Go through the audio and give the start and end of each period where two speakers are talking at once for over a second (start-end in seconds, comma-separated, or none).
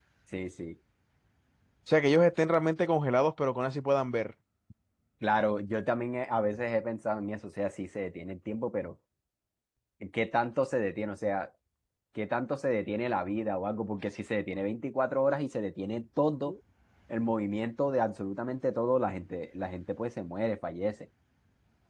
none